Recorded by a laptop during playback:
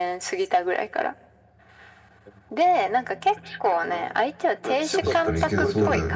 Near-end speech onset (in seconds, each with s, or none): 4.9 s